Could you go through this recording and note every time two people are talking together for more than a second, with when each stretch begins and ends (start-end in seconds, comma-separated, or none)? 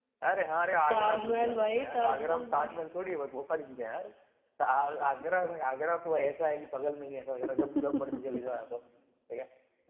0.9-2.7